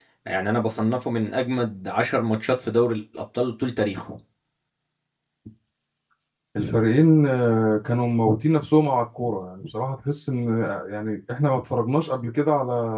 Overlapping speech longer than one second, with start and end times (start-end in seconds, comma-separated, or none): none